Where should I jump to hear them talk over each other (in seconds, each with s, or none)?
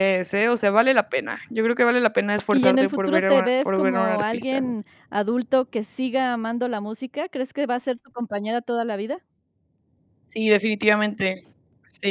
2.5 s